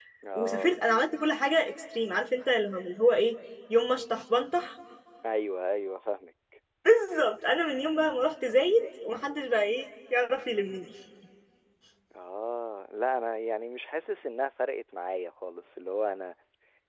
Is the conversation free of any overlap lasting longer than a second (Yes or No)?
Yes